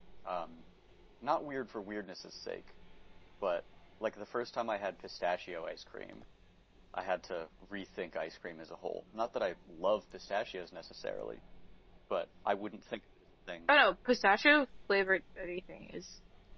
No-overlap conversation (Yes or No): Yes